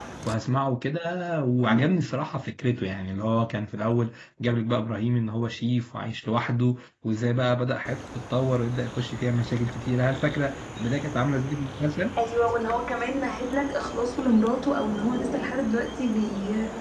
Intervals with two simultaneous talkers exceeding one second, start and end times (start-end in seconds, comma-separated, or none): none